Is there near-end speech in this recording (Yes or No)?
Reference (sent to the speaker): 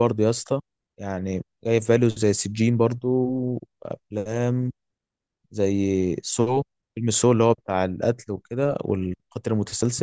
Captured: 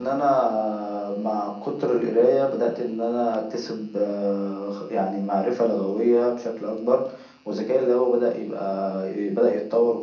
Yes